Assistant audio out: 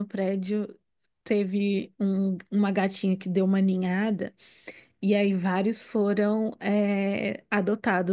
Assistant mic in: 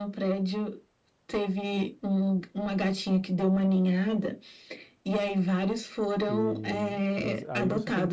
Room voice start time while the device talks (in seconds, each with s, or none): 6.3 s